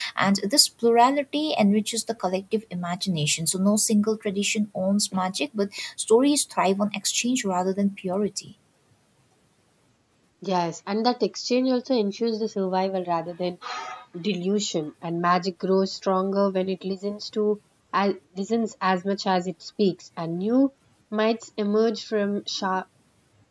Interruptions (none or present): none